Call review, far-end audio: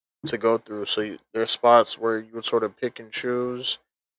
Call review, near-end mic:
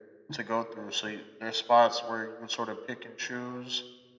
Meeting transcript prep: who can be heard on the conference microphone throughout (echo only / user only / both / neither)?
echo only